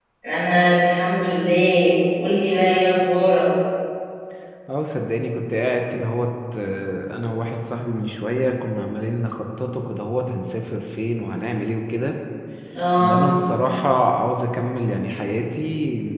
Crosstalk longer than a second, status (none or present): none